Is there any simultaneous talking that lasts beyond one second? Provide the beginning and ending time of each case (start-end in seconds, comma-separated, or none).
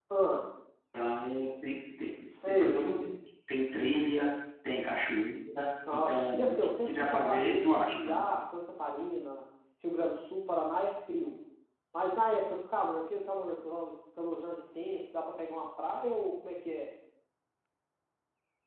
5.9-8.2